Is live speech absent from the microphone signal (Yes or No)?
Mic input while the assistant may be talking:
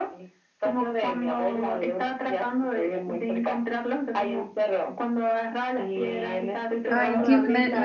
No